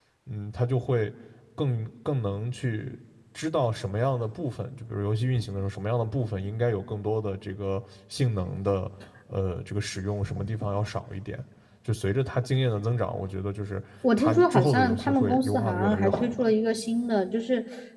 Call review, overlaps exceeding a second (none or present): present